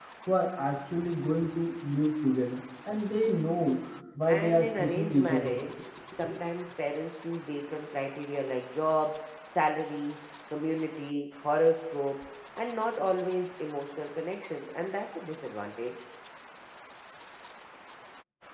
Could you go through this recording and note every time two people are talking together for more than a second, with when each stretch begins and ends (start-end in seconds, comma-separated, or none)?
4.3-5.6